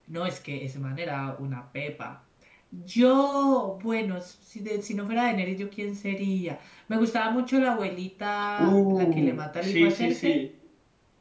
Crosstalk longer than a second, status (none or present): present